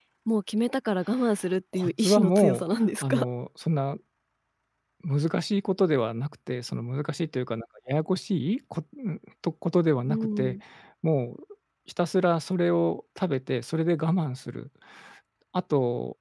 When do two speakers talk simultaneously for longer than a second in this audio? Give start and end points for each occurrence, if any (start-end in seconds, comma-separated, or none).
1.7-3.2